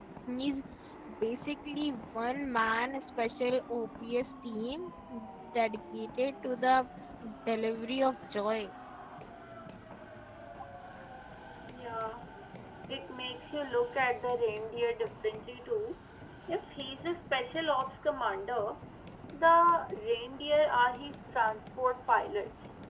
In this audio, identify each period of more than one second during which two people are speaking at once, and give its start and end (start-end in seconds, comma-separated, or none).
none